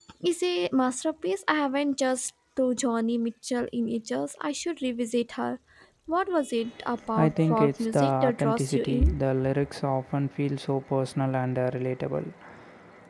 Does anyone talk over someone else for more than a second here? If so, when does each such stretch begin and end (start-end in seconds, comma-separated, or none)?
7.2-9.2